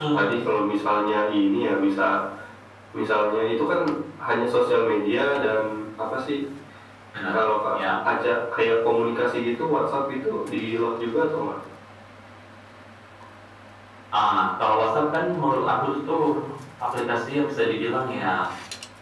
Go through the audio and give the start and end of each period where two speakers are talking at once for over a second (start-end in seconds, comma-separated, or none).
none